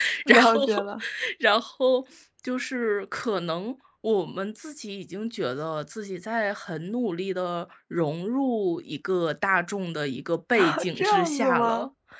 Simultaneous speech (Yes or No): Yes